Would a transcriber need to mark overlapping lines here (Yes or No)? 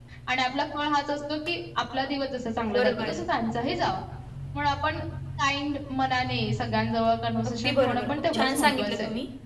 Yes